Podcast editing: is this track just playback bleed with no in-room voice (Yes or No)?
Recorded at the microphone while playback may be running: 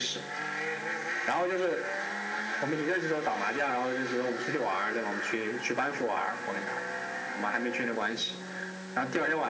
Yes